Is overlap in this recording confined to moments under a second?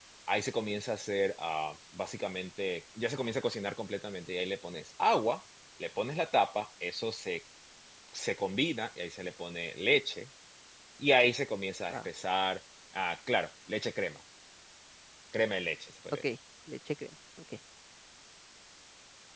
Yes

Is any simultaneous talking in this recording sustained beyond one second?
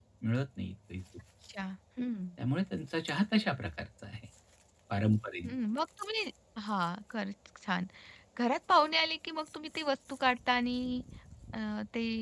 No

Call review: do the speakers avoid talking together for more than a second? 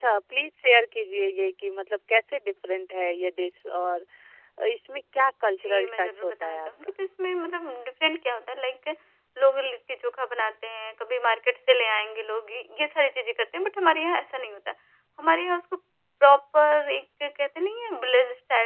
No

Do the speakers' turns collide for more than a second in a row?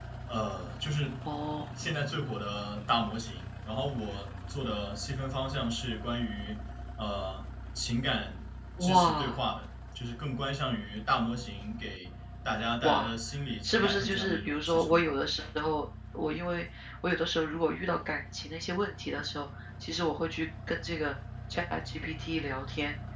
Yes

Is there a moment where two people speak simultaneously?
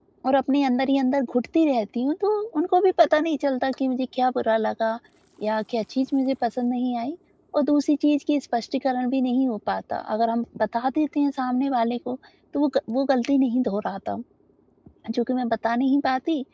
No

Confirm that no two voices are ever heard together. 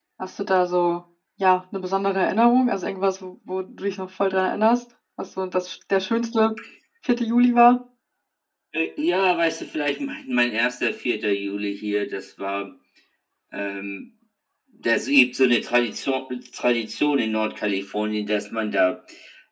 Yes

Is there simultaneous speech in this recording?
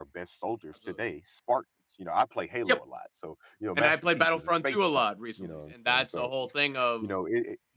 Yes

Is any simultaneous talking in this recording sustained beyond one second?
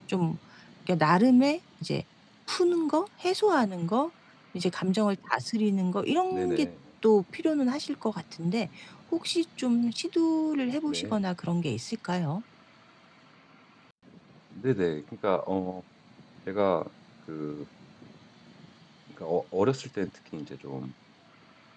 No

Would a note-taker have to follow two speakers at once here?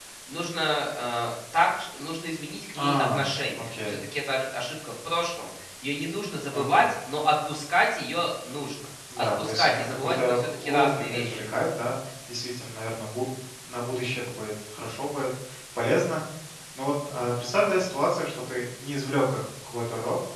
Yes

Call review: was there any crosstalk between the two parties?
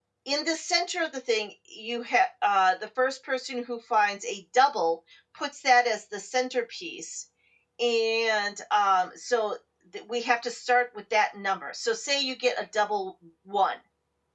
No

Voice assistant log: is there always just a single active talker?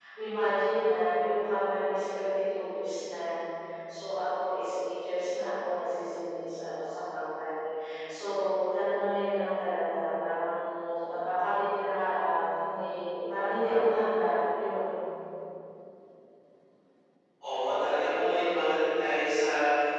Yes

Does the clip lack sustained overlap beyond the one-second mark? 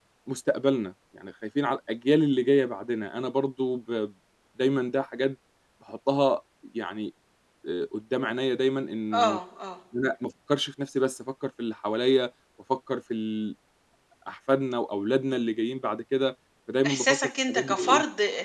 No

